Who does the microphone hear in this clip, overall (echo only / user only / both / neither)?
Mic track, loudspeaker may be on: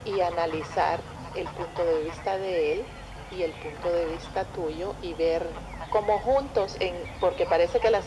echo only